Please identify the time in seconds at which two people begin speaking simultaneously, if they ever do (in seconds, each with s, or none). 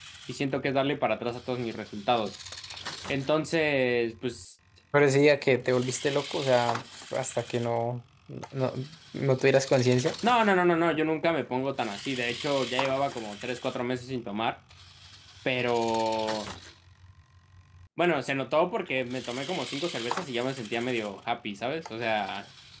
none